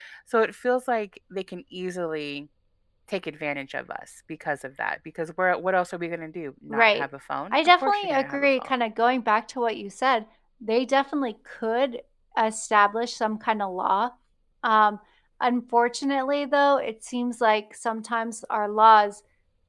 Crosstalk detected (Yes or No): Yes